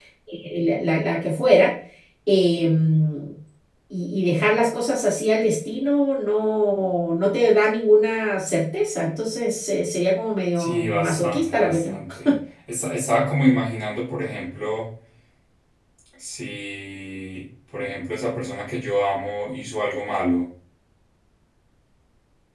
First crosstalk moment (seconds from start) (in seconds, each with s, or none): 10.6 s